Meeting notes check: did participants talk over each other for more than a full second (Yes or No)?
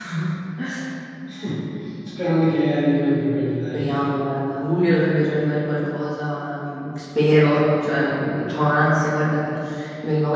No